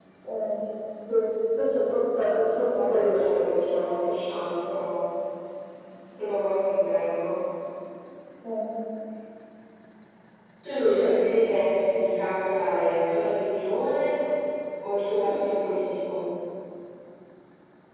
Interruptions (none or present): present